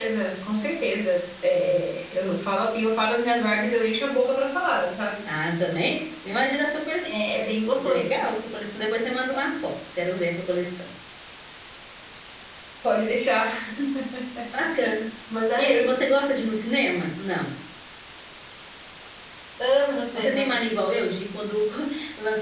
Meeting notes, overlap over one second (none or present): none